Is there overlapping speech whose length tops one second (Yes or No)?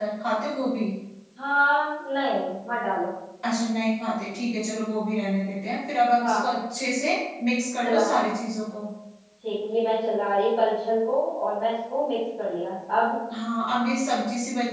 No